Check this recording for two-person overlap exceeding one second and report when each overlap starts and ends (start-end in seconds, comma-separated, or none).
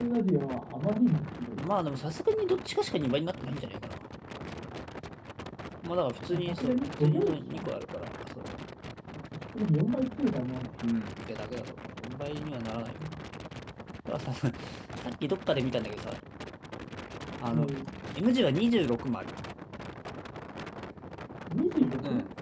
6.3-7.7